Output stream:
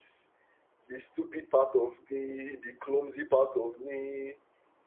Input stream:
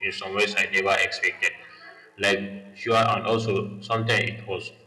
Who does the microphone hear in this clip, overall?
user only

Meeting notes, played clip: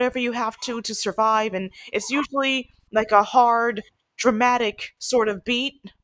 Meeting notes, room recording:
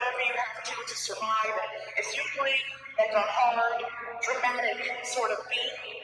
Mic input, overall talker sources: echo only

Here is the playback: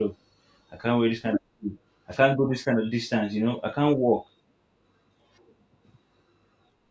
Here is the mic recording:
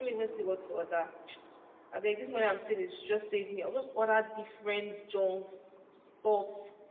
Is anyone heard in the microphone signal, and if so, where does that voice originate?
user only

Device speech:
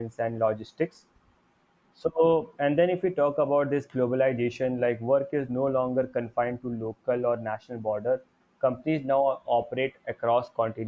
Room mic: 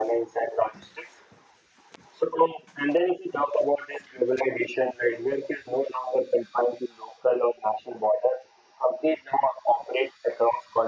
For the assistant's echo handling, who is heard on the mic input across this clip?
echo only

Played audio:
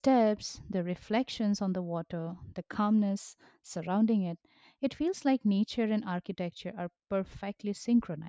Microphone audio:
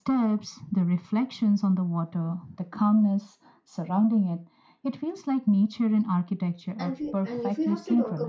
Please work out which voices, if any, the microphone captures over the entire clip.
both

